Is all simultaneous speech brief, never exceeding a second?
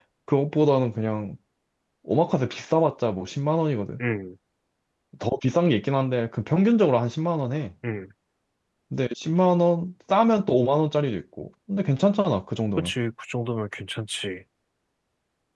Yes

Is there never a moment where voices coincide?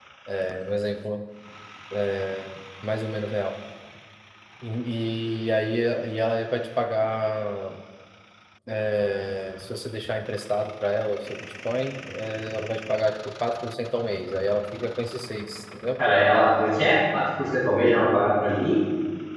Yes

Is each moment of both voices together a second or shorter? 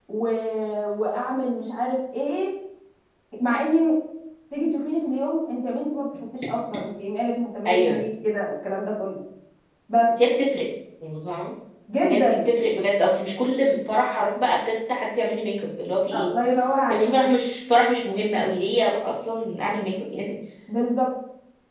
Yes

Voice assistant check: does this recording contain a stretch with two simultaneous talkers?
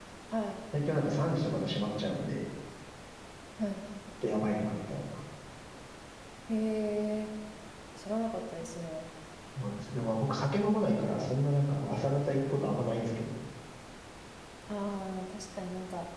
No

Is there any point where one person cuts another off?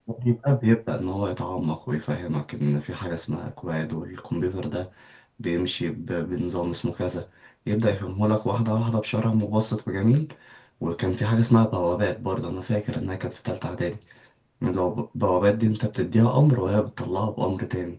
No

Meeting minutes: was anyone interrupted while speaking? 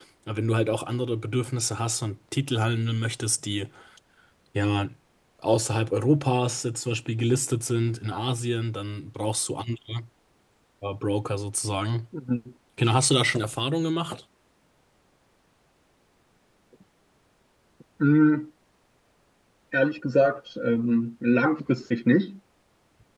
No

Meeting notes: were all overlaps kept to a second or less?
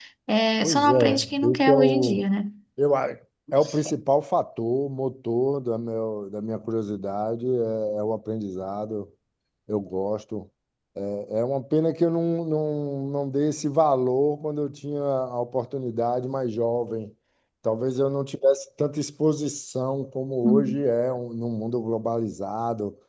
No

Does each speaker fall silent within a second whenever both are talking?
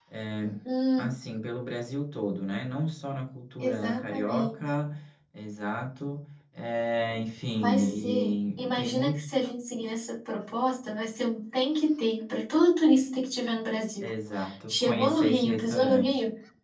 No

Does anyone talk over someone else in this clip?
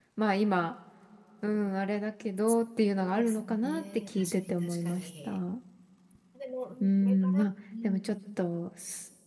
Yes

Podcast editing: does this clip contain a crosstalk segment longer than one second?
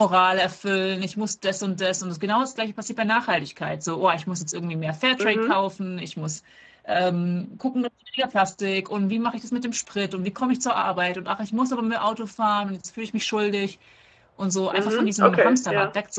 Yes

